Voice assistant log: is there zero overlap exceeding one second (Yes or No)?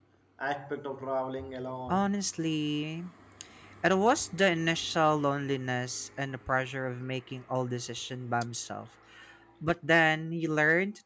Yes